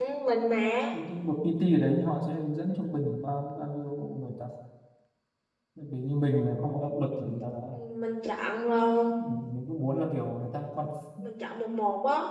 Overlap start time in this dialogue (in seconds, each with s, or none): none